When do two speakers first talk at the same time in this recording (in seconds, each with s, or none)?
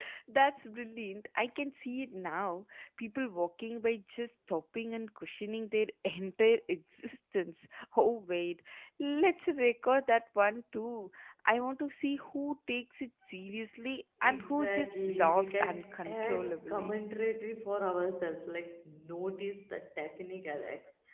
14.2 s